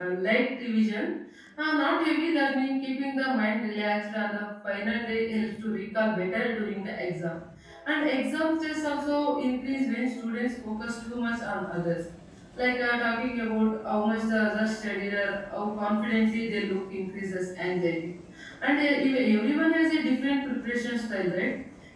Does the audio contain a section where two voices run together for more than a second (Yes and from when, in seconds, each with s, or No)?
No